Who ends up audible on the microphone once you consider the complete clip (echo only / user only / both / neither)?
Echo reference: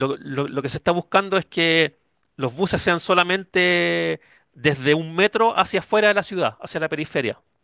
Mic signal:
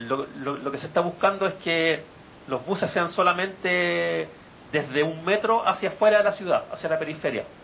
echo only